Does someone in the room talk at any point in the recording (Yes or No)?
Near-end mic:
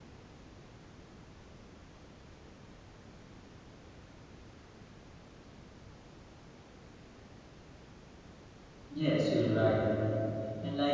Yes